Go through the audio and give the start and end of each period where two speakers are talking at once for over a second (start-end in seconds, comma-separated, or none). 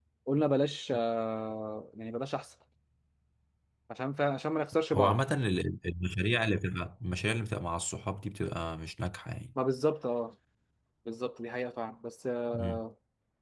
none